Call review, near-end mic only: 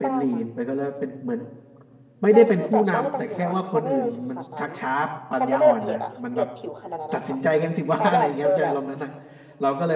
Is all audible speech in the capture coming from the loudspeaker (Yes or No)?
No